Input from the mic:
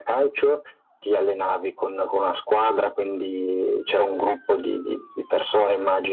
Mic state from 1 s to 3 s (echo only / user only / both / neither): echo only